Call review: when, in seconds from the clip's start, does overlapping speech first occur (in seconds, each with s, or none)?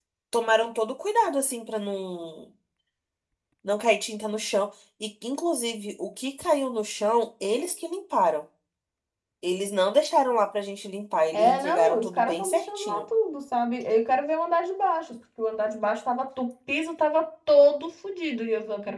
11.3 s